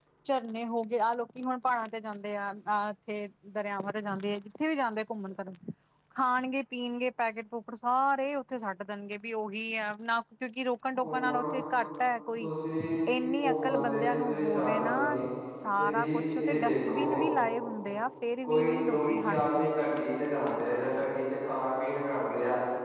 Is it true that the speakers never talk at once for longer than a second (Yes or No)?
No